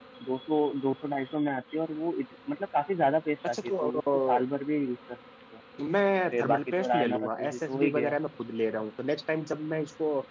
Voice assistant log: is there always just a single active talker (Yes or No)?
No